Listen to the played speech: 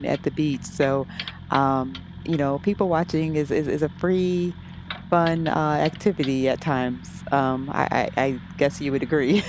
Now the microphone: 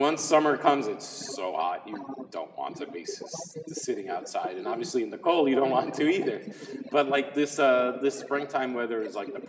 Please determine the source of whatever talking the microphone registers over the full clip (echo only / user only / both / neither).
both